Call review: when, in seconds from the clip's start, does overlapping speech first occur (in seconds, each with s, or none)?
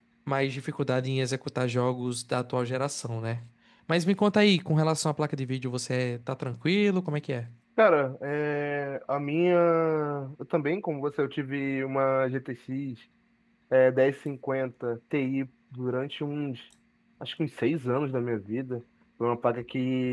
none